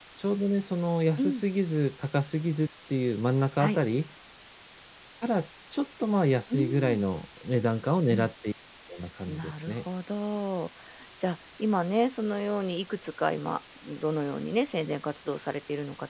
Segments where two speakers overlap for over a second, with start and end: none

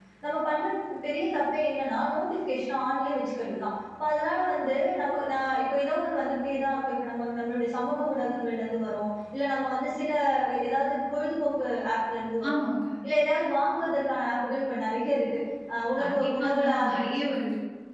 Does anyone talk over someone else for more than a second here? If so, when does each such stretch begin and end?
16.0-17.2

